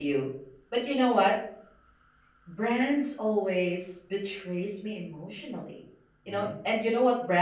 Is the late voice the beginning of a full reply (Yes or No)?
No